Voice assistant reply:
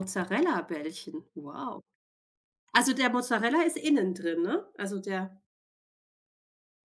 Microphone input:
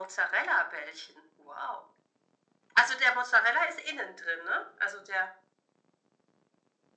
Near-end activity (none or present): none